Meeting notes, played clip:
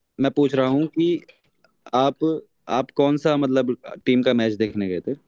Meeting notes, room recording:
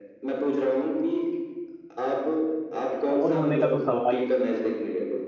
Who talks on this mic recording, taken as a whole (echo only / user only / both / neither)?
both